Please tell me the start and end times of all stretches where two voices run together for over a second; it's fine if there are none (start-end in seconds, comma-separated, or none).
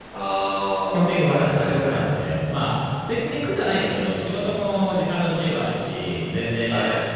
0.9-2.2